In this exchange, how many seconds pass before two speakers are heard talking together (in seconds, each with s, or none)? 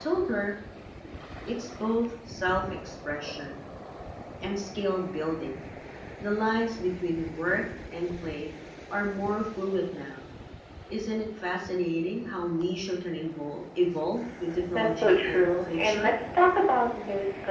14.7 s